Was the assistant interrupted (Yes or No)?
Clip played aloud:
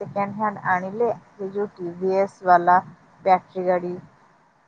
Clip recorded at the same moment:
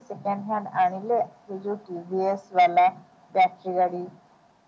No